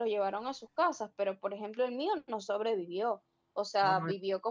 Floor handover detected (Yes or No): No